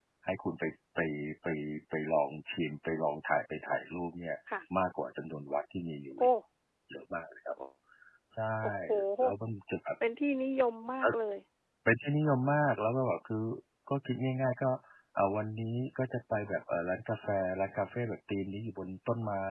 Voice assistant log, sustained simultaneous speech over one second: none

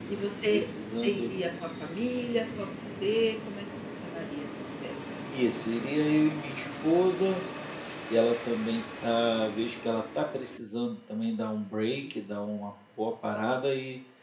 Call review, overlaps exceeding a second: none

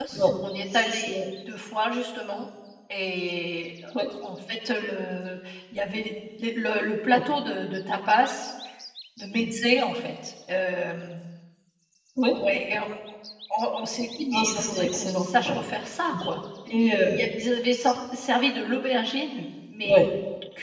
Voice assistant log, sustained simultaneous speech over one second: present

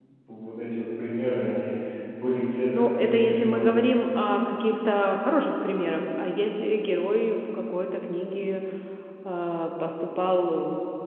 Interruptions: present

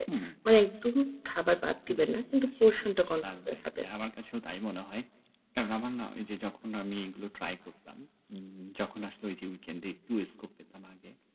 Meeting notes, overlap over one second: present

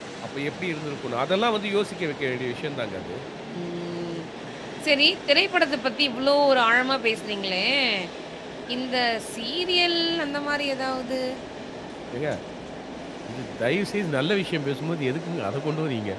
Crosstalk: none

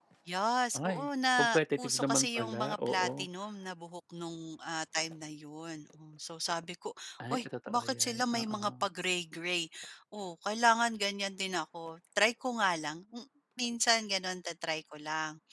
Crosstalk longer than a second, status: present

